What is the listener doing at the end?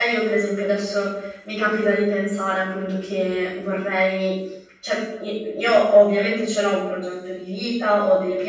listening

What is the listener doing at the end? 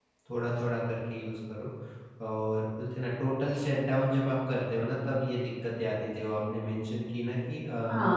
taking over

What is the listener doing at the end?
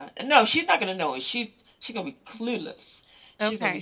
taking over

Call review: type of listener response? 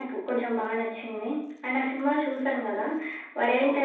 listening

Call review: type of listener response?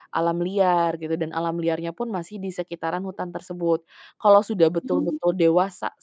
listening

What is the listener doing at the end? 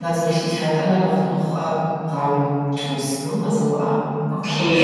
taking over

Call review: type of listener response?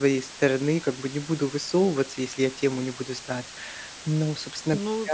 taking over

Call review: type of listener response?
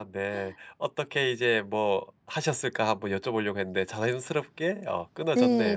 taking over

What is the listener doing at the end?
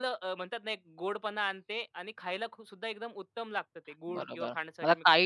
taking over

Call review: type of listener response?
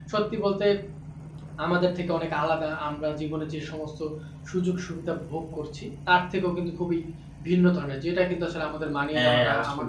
listening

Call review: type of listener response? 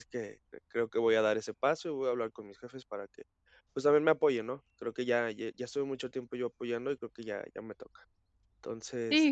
taking over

